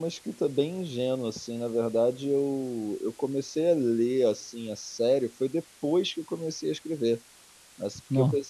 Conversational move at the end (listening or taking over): listening